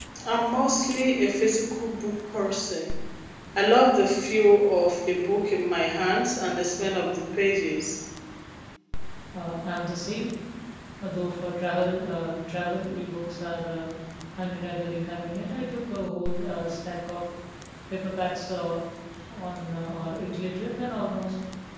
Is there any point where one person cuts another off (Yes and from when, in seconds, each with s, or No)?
No